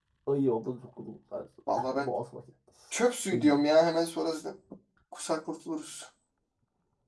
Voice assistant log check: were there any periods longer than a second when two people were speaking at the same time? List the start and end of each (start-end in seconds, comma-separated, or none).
none